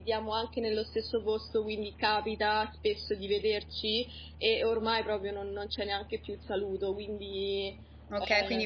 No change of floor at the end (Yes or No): No